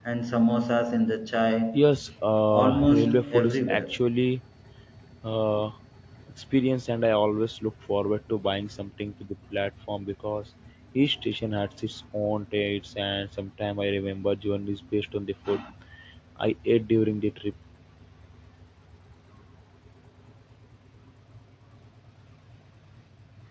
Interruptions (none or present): present